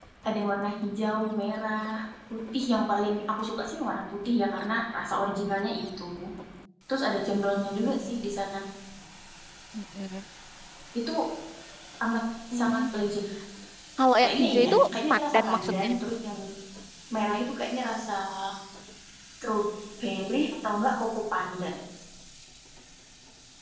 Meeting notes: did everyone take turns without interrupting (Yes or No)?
No